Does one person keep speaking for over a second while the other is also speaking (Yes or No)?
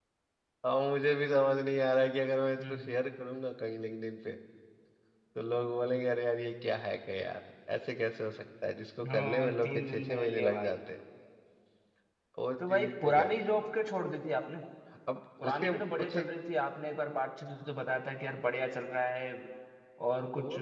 Yes